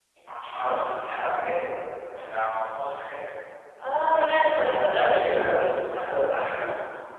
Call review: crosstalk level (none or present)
present